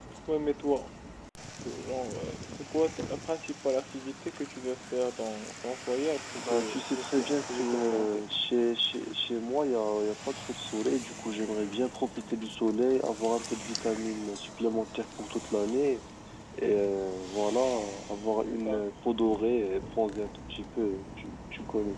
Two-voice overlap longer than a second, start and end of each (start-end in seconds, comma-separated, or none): 6.3-8.2